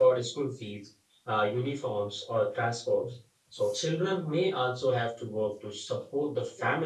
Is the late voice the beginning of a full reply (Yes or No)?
No